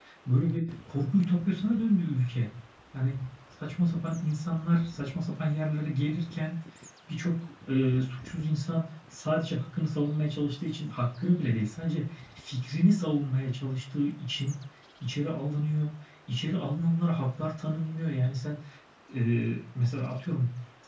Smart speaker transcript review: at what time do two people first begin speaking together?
none

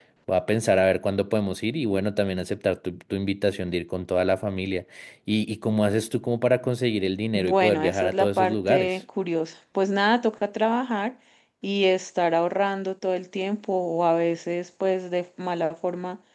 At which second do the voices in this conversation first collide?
7.3 s

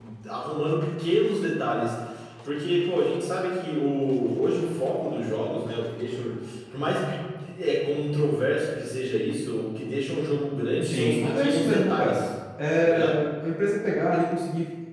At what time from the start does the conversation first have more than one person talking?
10.8 s

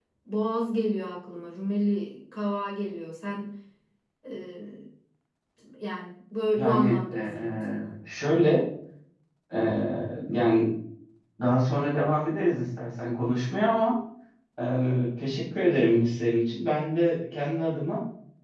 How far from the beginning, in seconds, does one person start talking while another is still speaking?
6.6 s

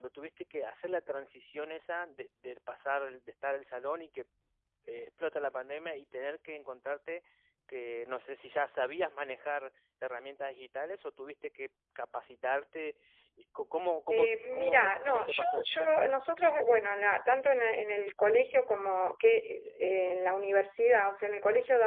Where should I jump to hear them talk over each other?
14.1 s

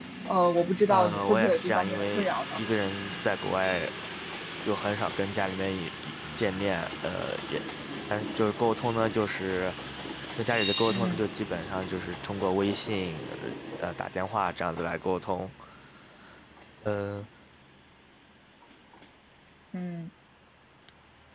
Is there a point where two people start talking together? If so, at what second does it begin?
0.9 s

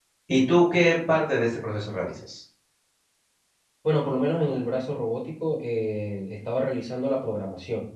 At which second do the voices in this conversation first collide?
none

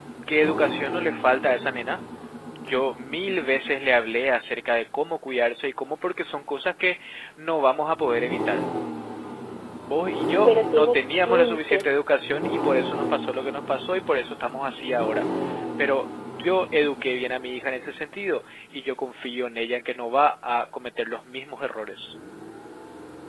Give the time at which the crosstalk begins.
10.5 s

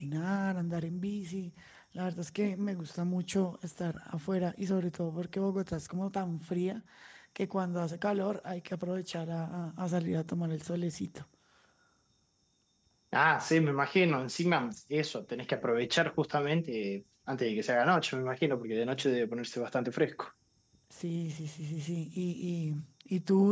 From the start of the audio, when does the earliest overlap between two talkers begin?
none

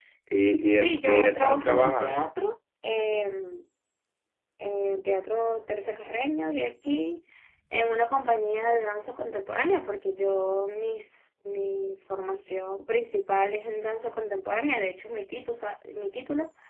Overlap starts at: 0.7 s

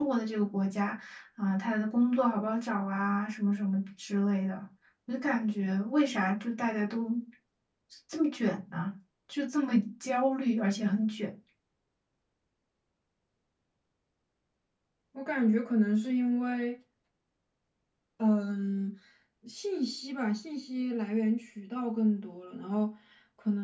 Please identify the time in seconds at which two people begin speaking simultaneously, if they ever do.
none

